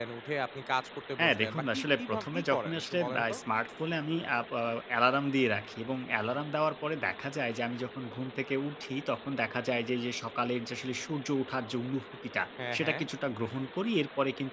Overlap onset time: 1.2 s

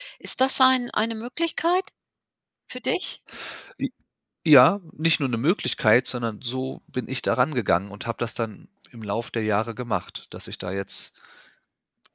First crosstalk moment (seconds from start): none

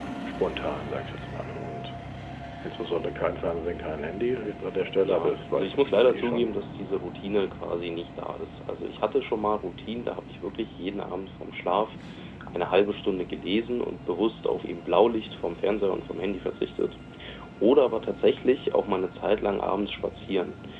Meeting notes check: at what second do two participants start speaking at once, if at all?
5.1 s

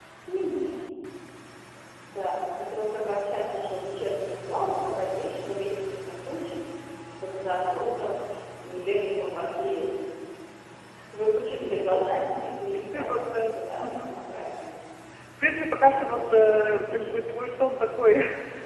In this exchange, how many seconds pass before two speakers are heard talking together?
12.7 s

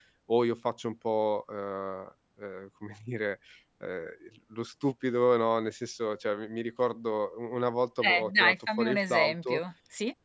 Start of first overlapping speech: 8.0 s

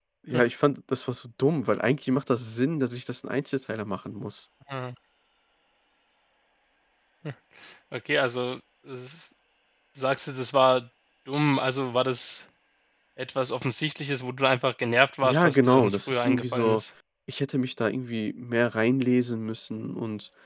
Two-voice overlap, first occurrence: 15.2 s

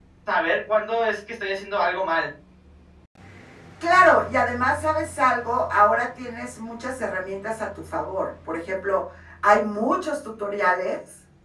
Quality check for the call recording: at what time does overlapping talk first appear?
none

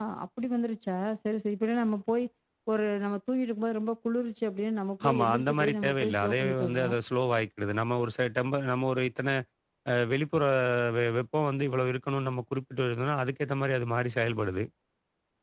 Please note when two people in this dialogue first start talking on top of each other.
5.0 s

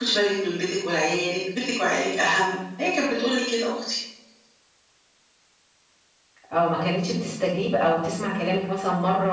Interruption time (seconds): none

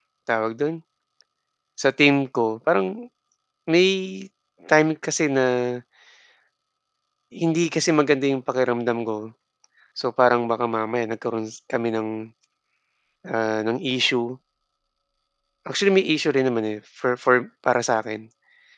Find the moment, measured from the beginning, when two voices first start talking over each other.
none

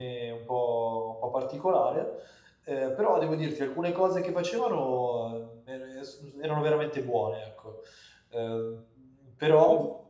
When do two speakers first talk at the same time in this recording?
none

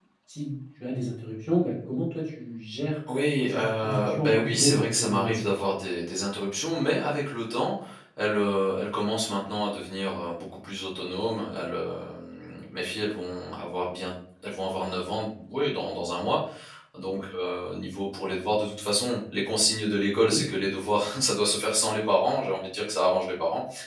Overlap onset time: 3.5 s

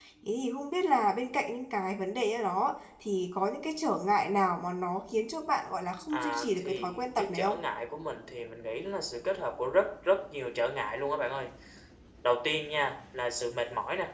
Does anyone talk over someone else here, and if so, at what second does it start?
6.1 s

